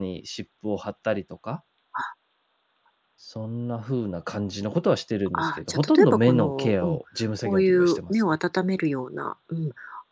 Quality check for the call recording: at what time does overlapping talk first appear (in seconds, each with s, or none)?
5.3 s